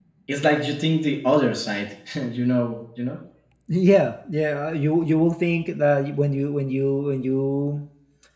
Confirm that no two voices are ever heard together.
Yes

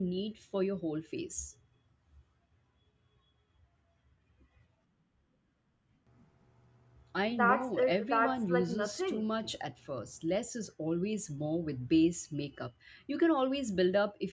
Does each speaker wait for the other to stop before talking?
No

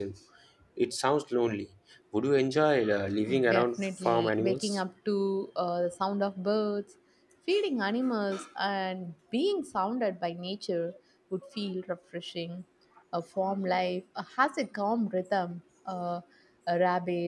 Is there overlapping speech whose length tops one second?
Yes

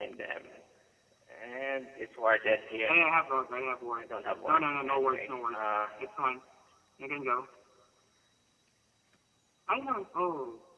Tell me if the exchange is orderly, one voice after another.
No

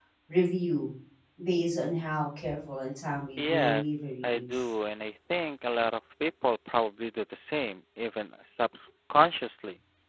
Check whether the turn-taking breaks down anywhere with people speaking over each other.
Yes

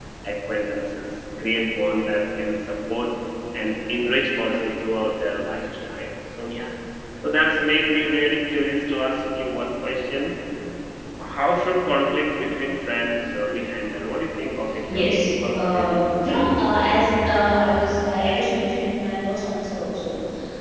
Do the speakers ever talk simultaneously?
Yes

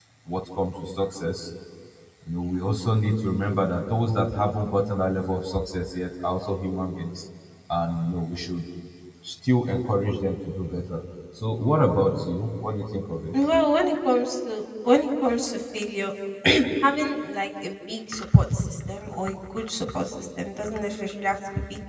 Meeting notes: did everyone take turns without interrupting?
Yes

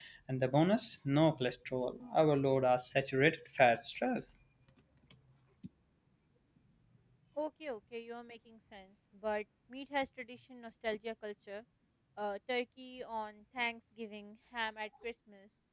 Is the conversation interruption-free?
Yes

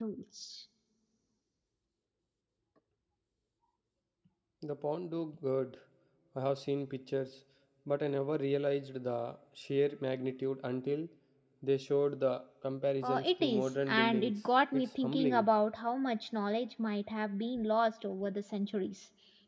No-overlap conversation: No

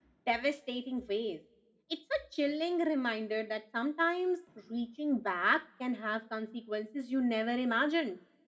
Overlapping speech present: No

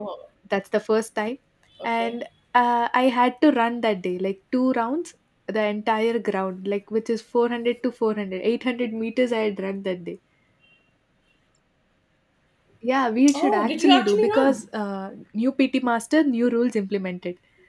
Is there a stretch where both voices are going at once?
Yes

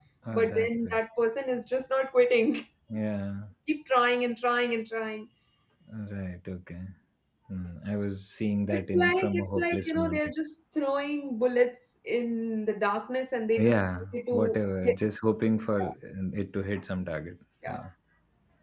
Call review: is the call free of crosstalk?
No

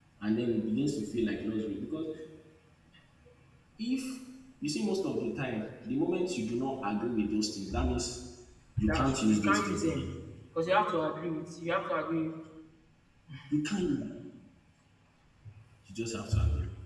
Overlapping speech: Yes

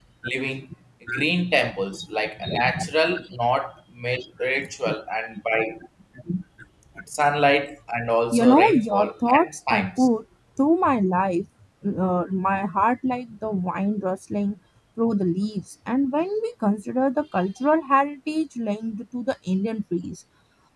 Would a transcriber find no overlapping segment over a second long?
No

